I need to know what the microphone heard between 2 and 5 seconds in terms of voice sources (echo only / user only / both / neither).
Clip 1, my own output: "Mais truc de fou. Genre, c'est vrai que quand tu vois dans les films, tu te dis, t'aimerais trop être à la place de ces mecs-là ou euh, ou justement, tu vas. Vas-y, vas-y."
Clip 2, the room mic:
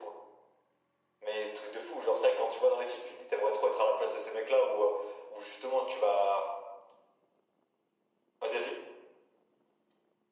echo only